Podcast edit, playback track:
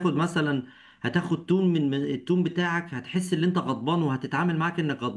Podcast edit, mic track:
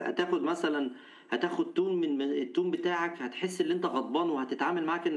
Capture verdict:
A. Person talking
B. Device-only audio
B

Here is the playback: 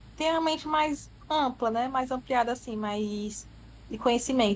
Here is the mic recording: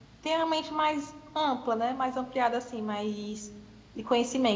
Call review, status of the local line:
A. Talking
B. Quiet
B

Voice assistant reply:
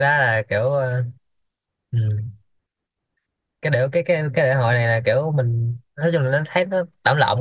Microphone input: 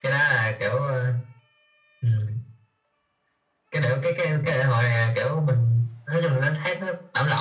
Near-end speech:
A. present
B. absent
B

